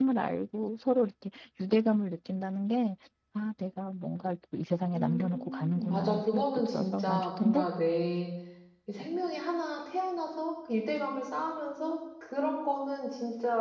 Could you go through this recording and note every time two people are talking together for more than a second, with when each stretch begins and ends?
5.0-7.7

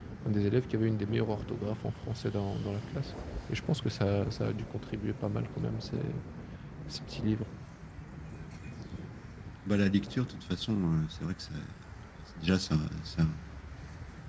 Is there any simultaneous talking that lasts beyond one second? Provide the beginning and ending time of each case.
none

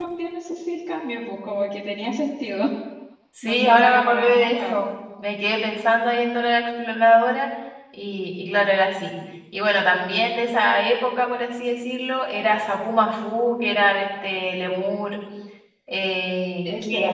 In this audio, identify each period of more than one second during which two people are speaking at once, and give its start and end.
3.5-4.8

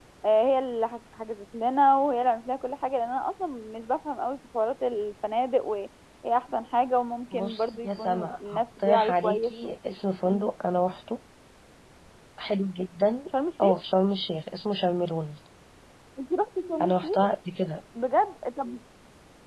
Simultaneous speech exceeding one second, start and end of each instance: 7.3-9.7

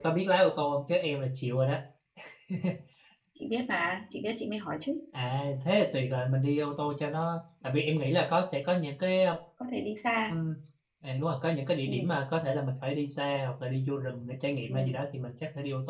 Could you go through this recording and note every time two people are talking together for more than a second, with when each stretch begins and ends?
none

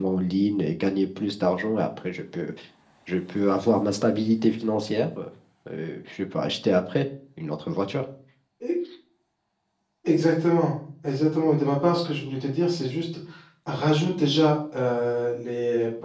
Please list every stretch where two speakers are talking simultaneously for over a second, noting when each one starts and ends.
none

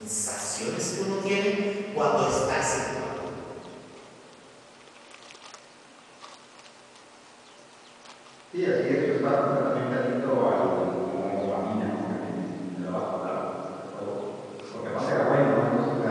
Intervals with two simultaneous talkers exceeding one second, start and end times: none

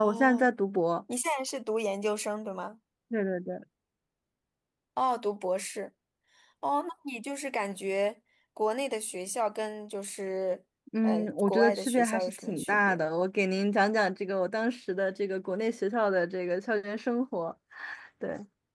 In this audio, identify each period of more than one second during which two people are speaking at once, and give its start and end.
11.0-13.0

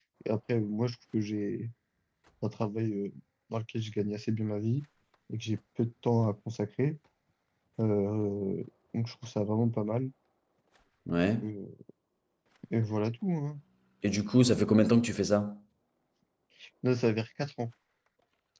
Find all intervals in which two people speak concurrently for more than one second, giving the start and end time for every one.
none

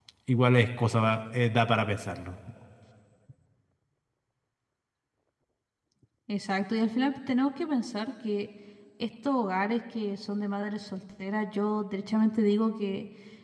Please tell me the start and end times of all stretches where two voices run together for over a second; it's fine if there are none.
none

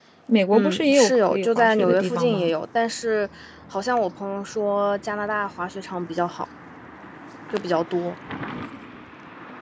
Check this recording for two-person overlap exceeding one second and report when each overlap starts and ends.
0.5-2.5

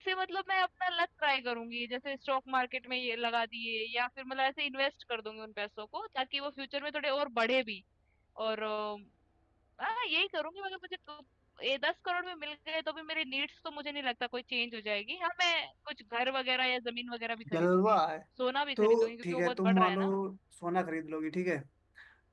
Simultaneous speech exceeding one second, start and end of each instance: 18.8-20.0

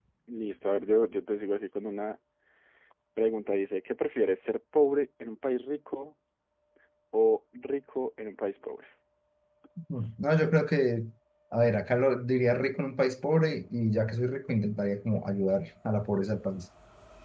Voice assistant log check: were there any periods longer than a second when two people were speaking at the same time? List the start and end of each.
none

